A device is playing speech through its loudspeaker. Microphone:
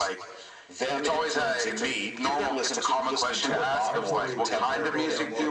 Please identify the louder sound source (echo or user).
echo